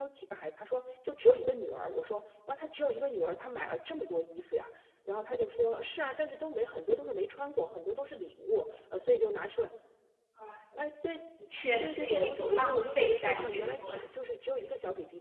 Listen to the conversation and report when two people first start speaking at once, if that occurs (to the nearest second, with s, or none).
12 s